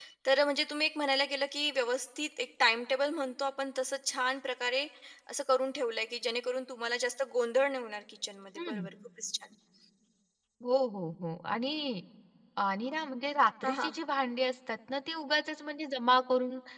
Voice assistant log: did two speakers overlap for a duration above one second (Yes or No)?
No